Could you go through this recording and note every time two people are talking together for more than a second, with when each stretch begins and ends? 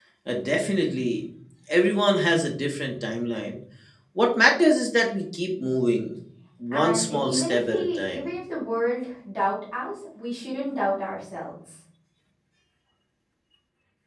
6.7-8.2

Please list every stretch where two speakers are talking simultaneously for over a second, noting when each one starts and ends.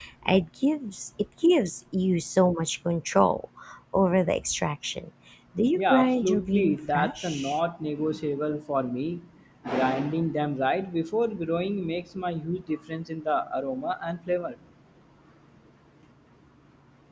5.8-7.6

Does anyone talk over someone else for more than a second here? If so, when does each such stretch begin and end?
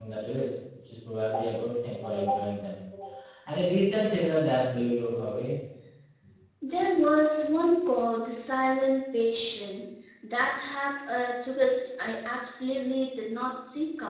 none

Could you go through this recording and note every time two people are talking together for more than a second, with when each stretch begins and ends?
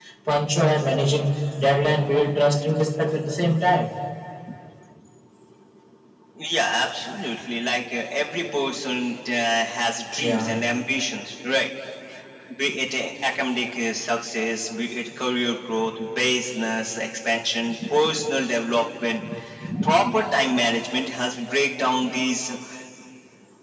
none

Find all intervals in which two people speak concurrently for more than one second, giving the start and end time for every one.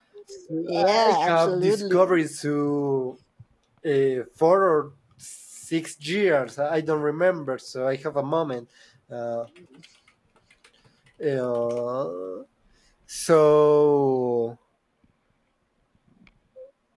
0.6-2.2

